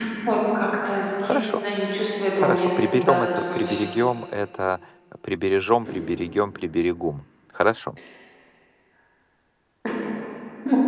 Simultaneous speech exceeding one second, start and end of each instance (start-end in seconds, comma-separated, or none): 2.4-3.8